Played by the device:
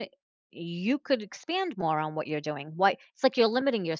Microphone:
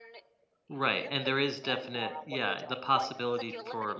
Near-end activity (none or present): present